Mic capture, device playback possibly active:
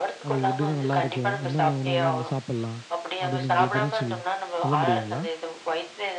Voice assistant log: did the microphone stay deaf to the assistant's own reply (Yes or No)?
No